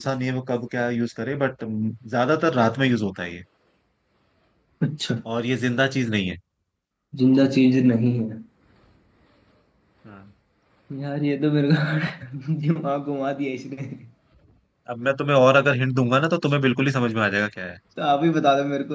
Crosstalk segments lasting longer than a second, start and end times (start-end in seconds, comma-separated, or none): none